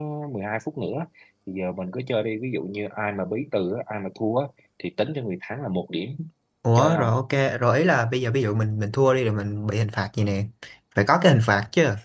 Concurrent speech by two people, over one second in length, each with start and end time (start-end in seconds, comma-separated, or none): none